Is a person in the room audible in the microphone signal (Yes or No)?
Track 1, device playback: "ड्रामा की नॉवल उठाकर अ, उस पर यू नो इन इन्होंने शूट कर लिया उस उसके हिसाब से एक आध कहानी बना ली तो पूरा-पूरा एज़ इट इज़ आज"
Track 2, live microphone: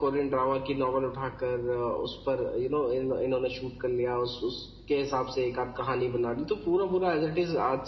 No